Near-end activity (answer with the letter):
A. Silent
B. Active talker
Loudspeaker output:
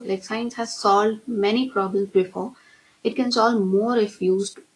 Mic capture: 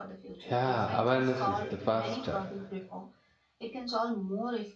B